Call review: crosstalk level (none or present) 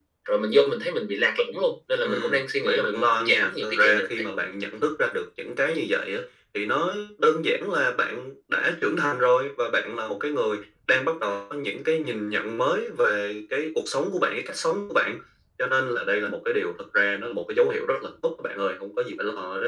present